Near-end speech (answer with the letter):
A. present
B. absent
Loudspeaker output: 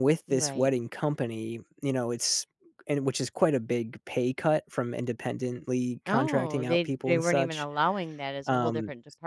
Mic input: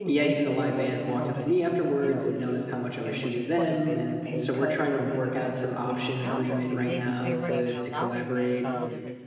A